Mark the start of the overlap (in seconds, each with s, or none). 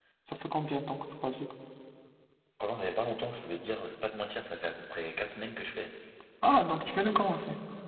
none